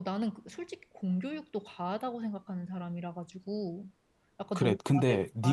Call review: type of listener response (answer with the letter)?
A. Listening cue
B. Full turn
B